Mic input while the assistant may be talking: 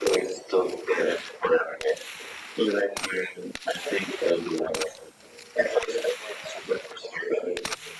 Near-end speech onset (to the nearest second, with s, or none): none